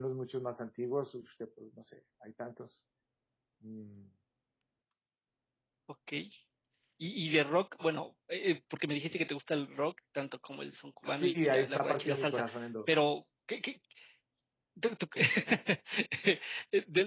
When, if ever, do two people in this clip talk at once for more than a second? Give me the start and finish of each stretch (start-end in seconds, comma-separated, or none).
11.1-12.4